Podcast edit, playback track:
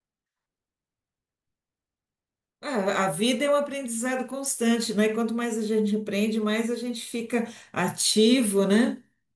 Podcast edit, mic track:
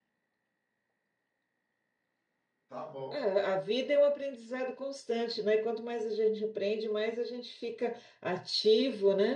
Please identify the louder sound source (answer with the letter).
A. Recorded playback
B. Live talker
A